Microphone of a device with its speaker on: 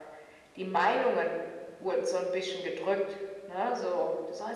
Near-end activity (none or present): none